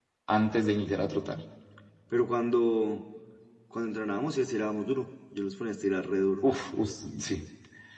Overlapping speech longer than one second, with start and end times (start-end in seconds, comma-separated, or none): none